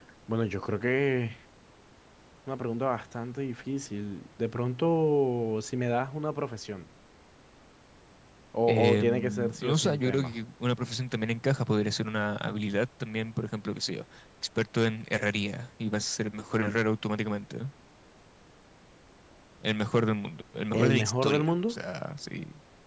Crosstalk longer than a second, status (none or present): present